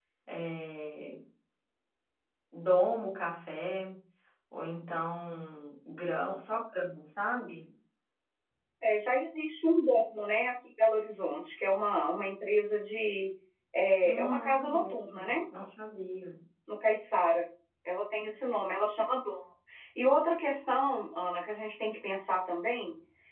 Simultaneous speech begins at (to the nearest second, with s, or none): 14 s